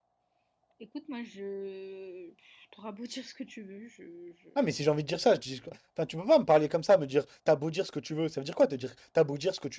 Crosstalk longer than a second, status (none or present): none